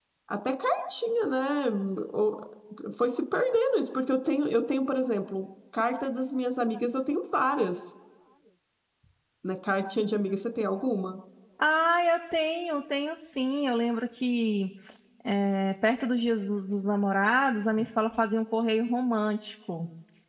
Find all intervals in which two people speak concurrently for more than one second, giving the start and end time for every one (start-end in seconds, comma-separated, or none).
none